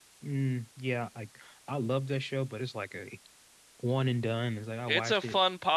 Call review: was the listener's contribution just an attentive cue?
No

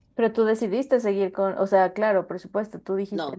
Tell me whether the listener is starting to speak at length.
Yes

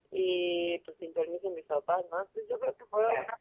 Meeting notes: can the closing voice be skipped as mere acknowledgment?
Yes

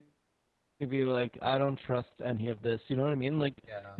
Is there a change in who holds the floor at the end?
No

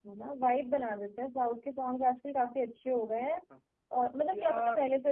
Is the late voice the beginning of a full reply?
No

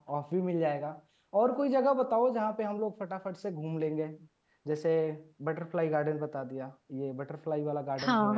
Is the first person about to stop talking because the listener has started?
Yes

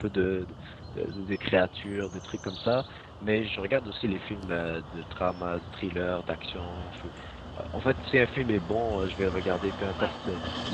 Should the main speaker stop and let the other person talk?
No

